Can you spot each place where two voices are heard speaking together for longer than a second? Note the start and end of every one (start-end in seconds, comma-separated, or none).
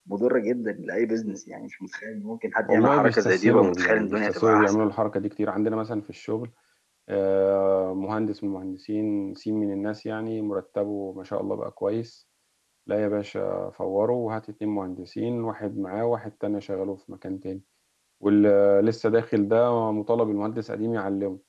2.6-4.8